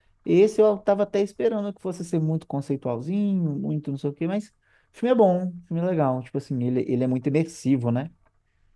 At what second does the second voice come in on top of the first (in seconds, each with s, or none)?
none